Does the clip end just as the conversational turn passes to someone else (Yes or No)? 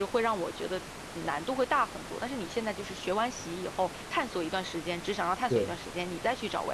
No